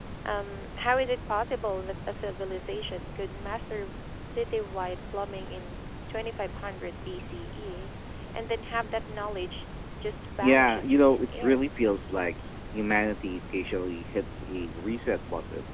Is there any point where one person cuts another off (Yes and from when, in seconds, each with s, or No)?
Yes, from 10.4 s